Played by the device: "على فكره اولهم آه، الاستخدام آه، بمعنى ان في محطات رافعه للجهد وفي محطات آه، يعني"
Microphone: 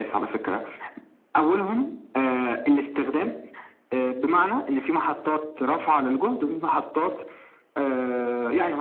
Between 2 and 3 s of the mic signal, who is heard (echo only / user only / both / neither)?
echo only